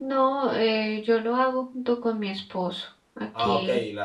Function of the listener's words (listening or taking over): taking over